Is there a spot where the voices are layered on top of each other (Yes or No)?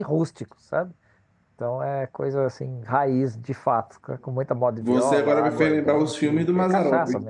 Yes